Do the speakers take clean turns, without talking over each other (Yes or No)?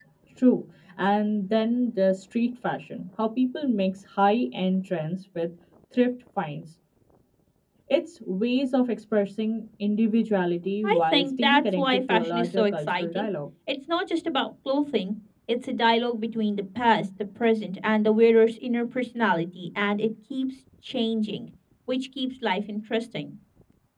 No